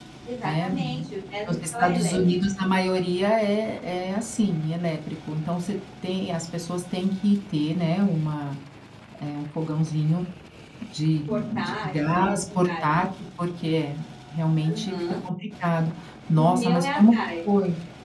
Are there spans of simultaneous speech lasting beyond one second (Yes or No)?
Yes